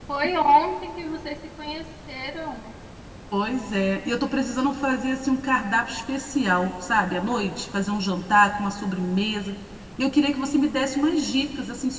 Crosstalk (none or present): none